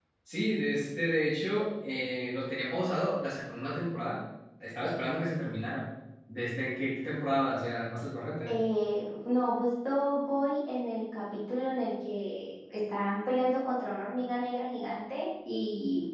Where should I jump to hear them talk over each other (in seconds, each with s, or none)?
none